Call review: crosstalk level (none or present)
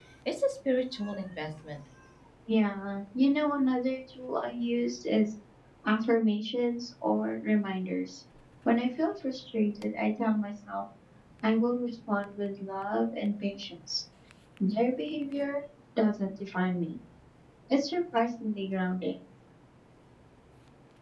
none